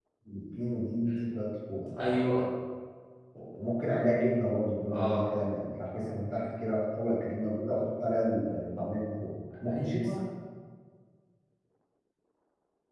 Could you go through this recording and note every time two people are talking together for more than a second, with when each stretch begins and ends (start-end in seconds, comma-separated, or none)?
none